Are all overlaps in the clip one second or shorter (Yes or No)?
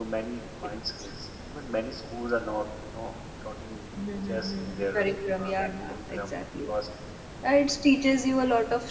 No